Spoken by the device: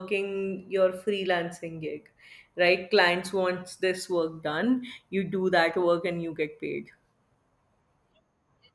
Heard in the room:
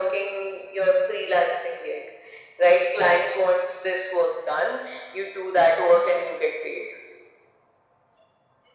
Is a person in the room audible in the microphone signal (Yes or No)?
No